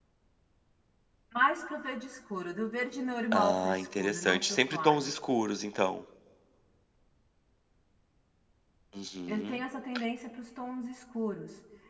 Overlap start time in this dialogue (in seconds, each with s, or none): 3.3 s